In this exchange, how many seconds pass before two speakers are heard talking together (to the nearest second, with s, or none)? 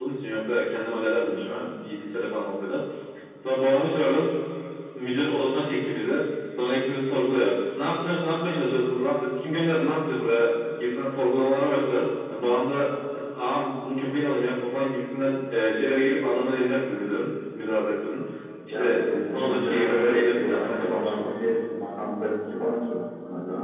19 s